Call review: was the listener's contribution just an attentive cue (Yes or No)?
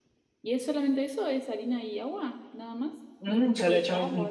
No